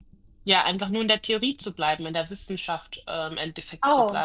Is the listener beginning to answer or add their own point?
Yes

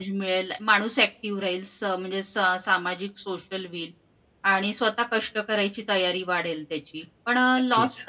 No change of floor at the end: Yes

